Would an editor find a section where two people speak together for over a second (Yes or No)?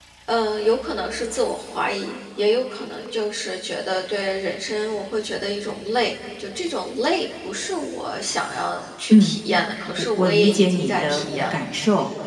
Yes